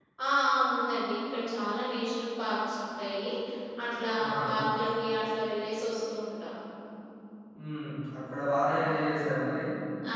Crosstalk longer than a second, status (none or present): none